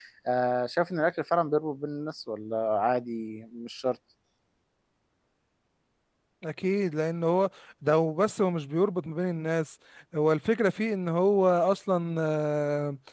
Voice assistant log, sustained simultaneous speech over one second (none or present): none